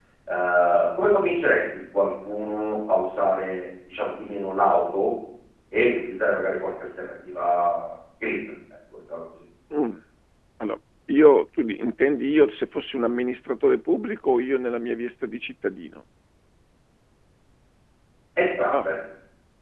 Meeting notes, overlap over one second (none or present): none